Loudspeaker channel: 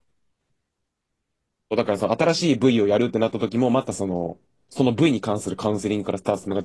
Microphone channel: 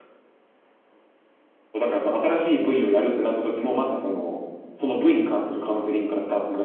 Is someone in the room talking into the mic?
No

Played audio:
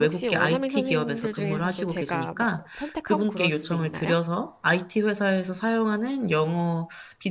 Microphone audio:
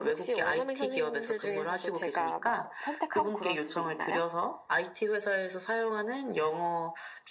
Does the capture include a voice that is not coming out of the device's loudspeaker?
No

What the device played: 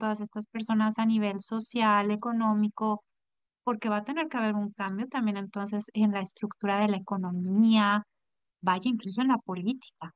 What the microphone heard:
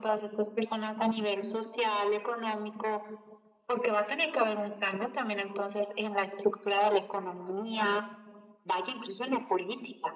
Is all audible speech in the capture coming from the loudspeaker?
Yes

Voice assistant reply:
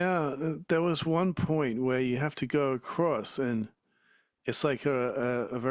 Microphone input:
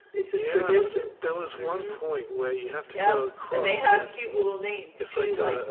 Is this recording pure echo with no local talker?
No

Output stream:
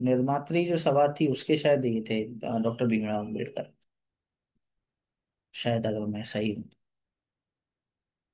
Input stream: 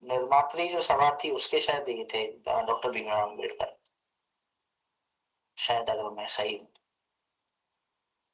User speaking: No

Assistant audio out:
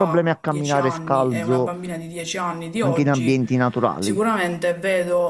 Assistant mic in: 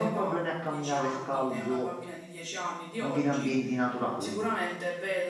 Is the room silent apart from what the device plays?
Yes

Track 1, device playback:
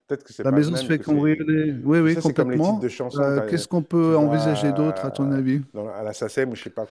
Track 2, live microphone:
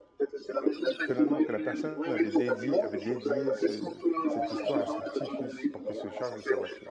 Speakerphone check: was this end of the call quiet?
No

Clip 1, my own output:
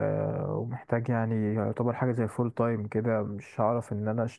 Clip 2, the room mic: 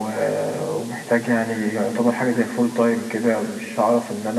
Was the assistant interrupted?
No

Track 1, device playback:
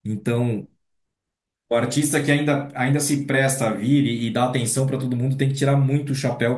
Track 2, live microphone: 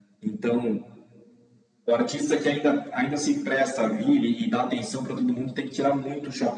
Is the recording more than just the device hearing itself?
No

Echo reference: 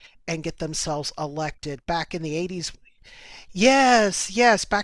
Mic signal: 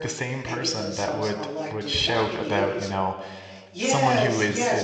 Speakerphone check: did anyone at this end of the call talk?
Yes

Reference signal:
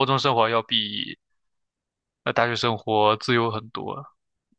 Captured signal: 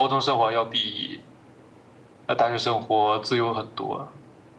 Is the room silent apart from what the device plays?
Yes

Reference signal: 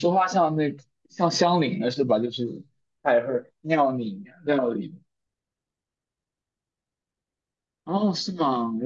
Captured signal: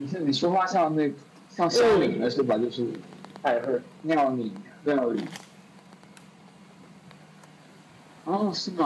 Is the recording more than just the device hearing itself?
Yes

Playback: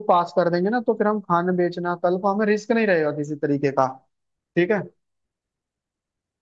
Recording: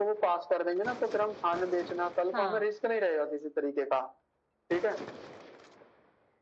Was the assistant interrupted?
Yes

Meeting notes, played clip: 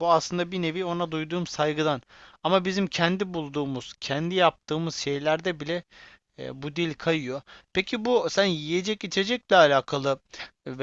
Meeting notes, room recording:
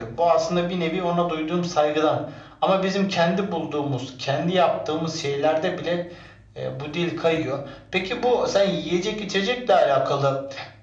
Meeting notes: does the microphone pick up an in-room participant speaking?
No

